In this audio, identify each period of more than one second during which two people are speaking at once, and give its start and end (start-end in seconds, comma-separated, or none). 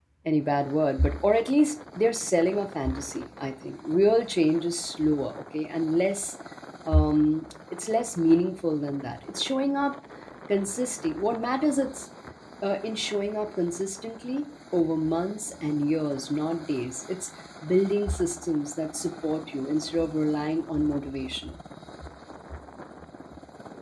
none